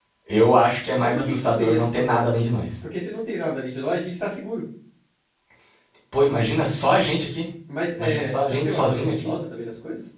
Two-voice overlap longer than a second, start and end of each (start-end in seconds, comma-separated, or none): 0.9-2.2, 8.0-9.3